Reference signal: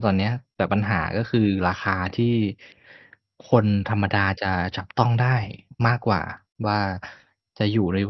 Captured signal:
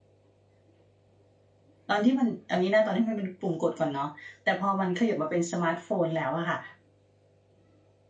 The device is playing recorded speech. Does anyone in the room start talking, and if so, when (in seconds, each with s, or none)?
1.9 s